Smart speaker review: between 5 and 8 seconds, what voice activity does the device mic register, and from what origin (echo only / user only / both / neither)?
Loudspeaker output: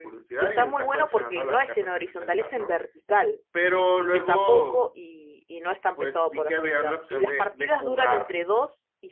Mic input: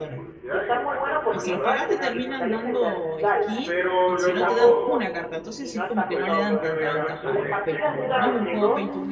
both